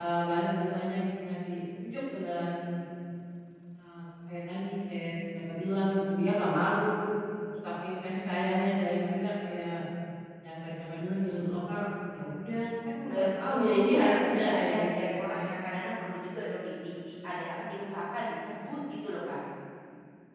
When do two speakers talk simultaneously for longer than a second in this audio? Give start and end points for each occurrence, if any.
13.0-15.5

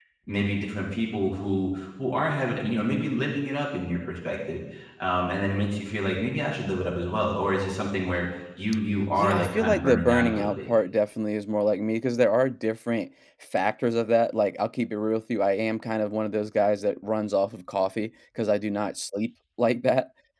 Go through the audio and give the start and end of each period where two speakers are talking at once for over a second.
9.2-10.6

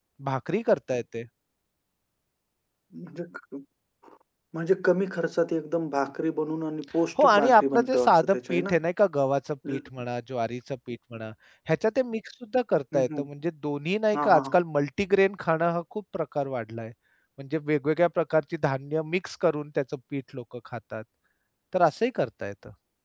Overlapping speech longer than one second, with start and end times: 7.2-8.8

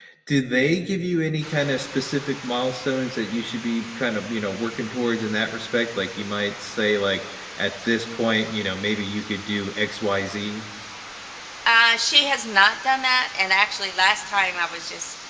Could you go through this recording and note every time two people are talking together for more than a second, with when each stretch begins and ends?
none

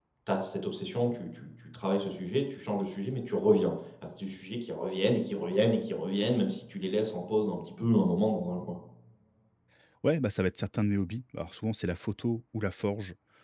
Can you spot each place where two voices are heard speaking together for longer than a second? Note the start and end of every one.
none

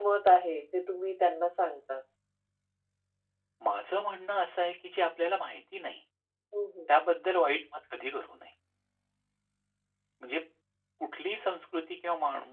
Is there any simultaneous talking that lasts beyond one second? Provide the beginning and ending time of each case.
none

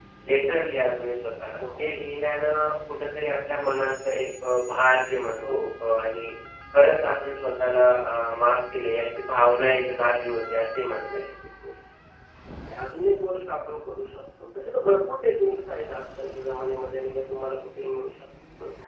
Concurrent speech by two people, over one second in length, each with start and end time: none

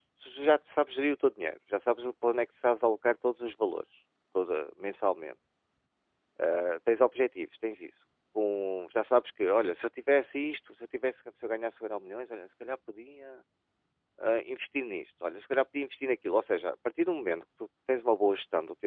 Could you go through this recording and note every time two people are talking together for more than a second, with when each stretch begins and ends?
none

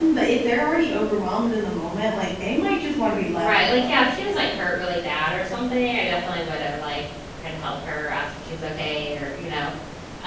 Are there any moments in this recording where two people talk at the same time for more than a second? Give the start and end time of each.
3.3-4.5

